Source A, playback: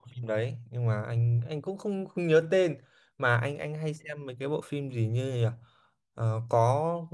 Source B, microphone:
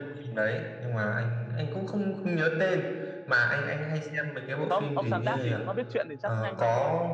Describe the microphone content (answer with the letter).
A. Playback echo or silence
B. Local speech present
B